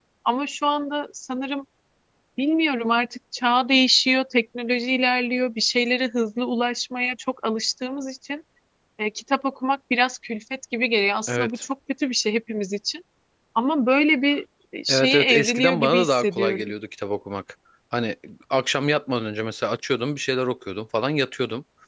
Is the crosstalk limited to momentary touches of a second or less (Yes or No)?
No